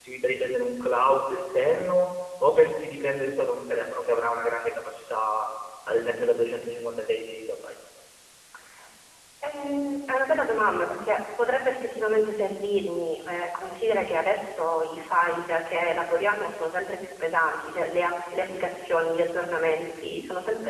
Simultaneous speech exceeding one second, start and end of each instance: none

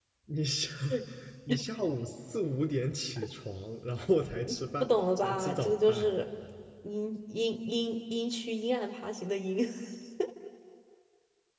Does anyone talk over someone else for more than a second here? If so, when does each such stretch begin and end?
4.8-6.1

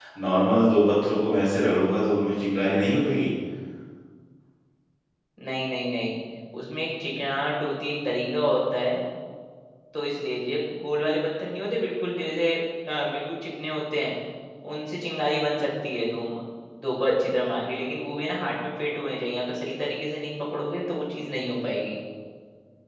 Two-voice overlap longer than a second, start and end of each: none

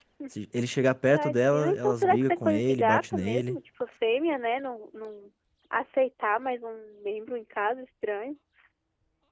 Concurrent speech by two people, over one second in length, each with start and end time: 1.1-3.6

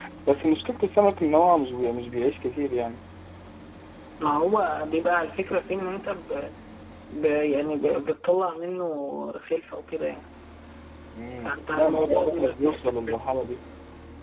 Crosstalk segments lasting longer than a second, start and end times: 11.4-13.1

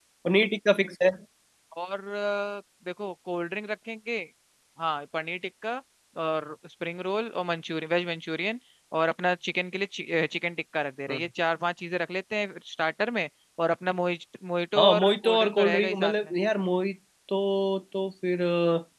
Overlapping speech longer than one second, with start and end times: 14.8-16.1

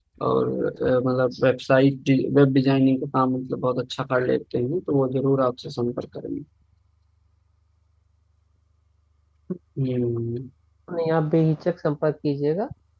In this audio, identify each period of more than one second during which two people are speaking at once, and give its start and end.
none

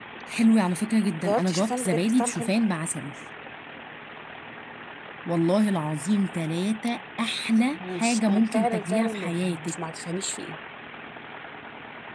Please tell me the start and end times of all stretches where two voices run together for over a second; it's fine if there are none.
1.2-2.5, 7.7-9.8

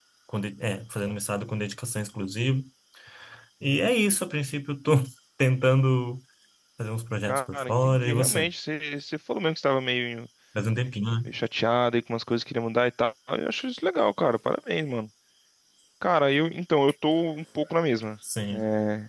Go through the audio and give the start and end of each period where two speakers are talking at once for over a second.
7.2-8.5

